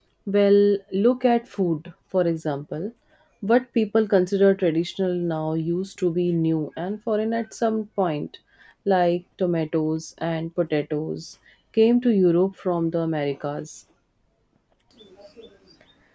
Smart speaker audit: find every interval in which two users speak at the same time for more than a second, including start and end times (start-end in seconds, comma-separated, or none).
none